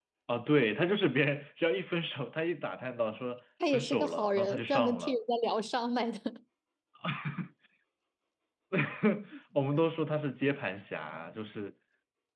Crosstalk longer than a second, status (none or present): present